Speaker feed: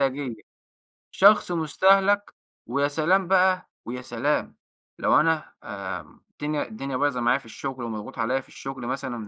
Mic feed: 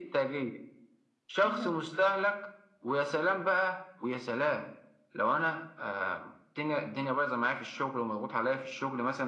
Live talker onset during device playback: 1.4 s

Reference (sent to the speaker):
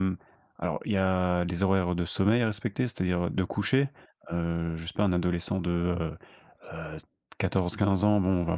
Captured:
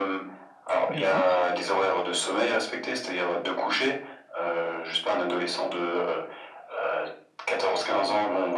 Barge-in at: 0.9 s

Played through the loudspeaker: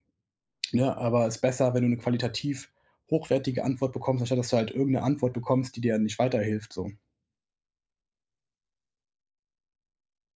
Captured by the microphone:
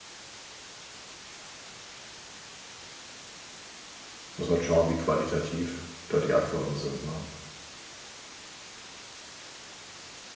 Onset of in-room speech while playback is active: 4.3 s

